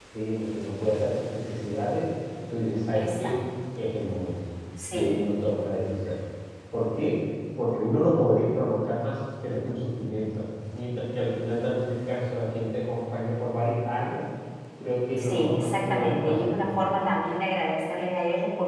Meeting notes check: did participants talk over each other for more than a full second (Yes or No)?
Yes